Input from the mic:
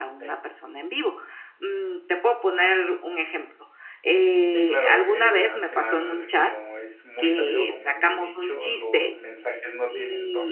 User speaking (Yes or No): Yes